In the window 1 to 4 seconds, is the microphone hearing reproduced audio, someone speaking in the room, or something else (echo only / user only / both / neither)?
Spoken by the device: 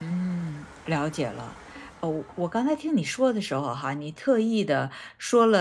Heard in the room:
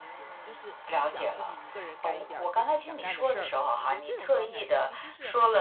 both